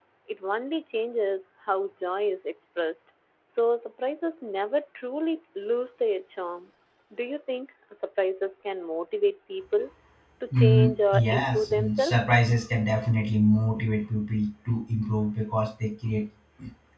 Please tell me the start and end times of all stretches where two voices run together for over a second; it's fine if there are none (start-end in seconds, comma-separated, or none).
10.5-12.1